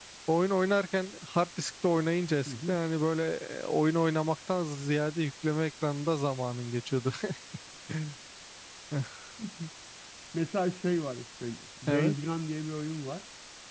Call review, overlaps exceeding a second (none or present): none